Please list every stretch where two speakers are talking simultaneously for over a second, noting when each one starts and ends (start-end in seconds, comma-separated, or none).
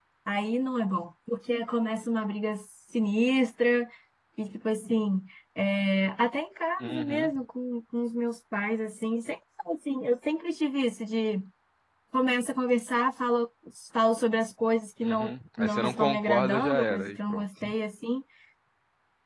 15.0-17.4